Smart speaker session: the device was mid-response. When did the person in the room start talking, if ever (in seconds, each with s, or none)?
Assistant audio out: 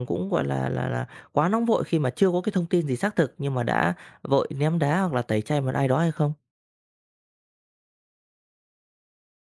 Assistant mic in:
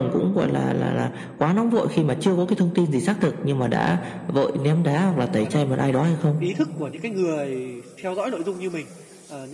3.7 s